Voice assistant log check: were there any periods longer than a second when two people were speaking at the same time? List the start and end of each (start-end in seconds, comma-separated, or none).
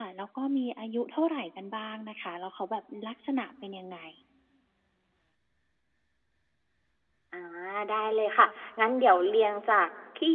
none